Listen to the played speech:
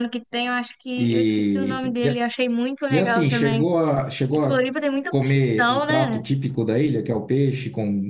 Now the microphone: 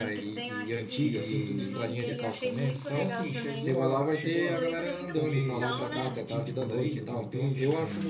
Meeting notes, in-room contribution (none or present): present